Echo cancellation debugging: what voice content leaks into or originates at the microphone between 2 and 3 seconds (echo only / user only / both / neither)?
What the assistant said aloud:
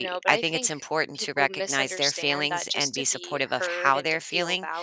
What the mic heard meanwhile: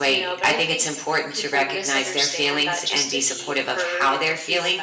echo only